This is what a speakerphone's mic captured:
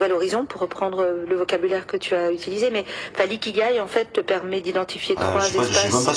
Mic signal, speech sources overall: both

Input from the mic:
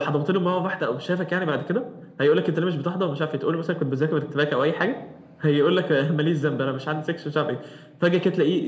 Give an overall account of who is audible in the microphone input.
echo only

